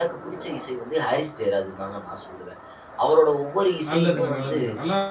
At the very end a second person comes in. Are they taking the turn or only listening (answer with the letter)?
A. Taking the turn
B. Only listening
A